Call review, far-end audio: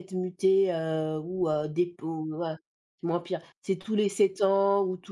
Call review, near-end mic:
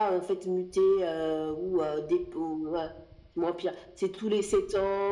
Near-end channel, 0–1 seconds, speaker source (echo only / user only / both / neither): echo only